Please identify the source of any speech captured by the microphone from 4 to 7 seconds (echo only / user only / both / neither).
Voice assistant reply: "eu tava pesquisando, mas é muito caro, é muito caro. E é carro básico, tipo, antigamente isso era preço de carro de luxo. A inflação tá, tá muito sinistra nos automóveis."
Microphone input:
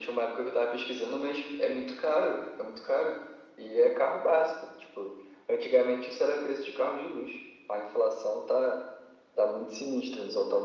echo only